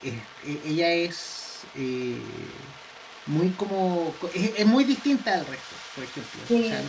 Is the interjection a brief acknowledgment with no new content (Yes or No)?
Yes